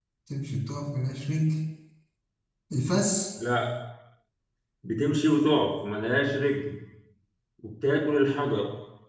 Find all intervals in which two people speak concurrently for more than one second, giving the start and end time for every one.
none

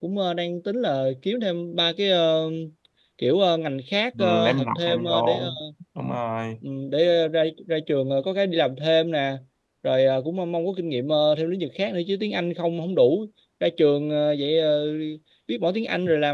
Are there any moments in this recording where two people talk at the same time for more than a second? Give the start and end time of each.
4.2-5.5

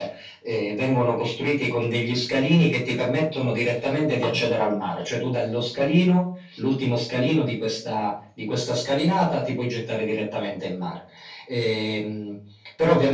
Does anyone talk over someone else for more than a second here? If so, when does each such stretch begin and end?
none

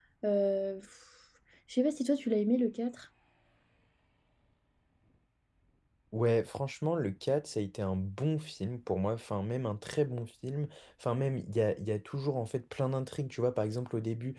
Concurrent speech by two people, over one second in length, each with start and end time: none

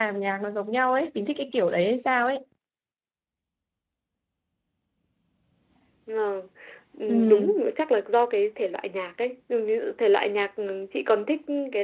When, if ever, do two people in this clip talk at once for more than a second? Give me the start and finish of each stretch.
none

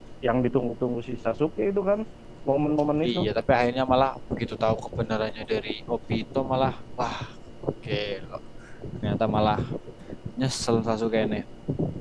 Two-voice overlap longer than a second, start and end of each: none

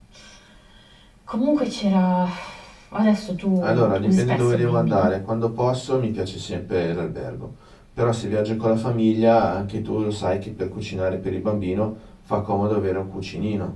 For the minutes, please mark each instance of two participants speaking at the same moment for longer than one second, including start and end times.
3.6-5.1

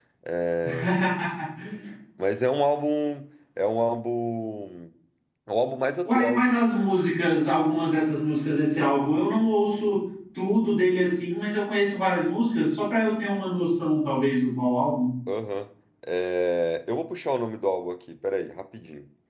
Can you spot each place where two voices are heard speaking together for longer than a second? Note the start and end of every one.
none

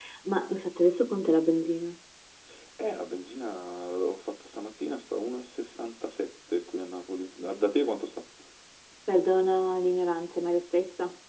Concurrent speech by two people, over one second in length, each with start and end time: none

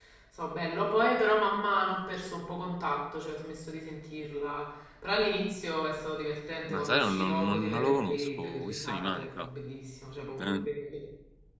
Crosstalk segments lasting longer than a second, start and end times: 6.7-9.4

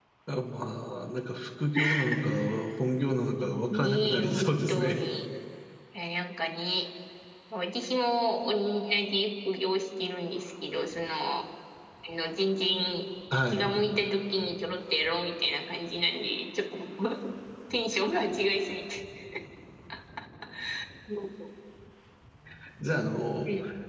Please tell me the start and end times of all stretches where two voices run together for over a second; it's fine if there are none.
3.7-5.0

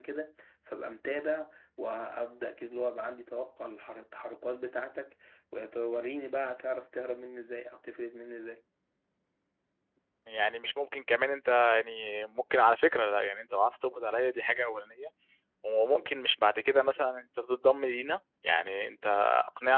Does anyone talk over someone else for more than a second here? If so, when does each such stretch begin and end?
none

